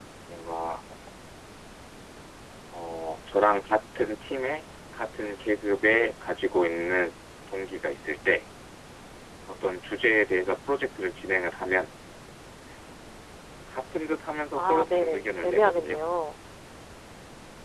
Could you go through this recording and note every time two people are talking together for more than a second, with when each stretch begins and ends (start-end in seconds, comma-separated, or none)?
14.5-16.0